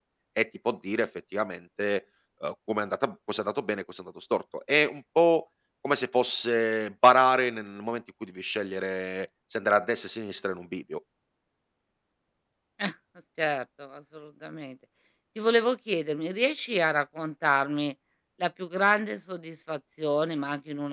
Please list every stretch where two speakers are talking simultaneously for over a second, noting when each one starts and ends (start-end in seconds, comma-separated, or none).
none